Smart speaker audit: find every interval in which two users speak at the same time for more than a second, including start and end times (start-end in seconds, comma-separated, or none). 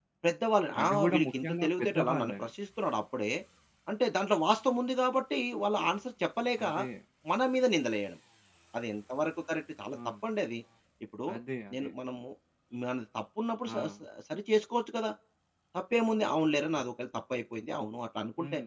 0.8-2.5